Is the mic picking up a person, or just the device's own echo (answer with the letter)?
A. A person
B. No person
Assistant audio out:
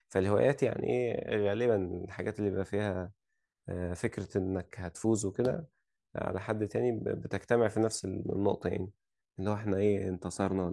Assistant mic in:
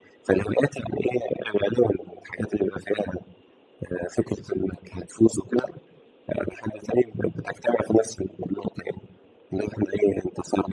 B